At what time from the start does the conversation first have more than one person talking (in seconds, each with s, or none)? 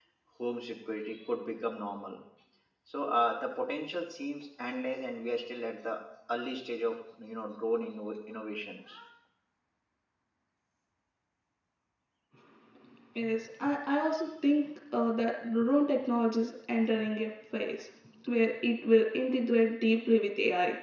none